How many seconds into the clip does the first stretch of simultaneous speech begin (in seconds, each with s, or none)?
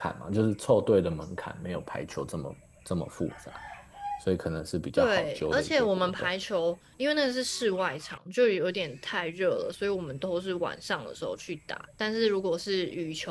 5.0 s